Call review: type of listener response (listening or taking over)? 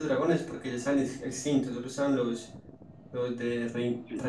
listening